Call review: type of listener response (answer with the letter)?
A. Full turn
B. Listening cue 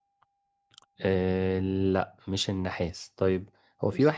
B